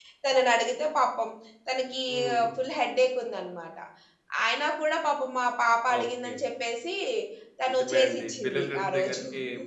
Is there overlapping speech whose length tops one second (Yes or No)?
Yes